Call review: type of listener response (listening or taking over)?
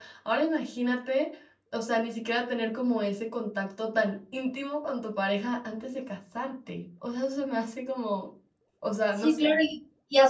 taking over